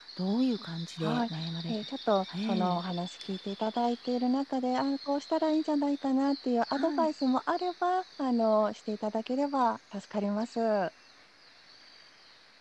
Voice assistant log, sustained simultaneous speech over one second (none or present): none